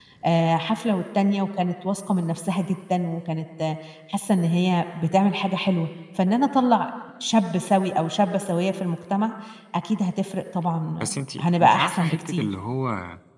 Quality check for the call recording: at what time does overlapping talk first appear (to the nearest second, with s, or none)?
11 s